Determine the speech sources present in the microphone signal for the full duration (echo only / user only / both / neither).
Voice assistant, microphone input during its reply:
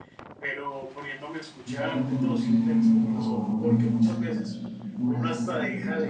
both